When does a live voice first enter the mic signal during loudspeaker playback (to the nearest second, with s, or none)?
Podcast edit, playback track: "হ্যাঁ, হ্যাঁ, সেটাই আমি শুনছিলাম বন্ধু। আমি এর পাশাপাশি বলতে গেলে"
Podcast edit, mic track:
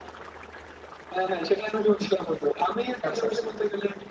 3 s